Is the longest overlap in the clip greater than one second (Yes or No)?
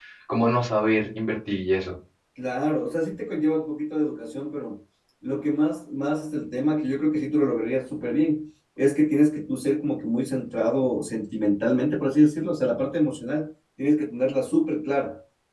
No